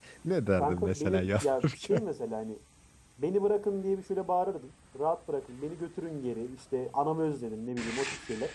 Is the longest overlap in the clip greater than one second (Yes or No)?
Yes